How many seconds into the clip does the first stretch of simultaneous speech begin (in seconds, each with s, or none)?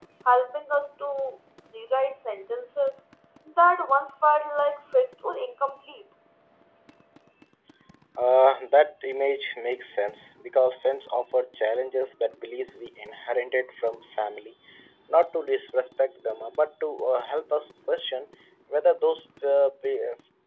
none